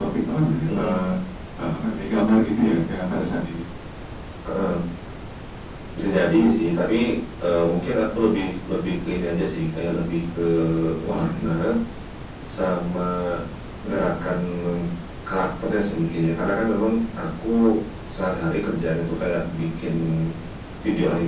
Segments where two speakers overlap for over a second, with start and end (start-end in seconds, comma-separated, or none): none